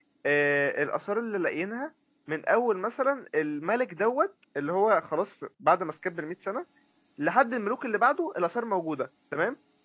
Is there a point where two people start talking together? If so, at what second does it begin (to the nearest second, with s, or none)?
none